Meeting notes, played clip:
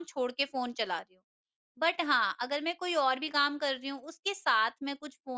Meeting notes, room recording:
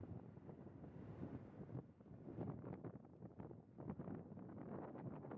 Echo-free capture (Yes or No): Yes